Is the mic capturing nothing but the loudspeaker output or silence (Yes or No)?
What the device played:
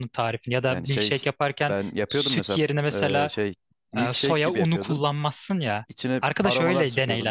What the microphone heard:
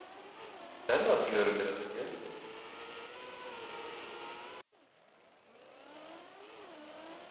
No